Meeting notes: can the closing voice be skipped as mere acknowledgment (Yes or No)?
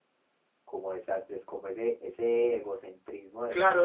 No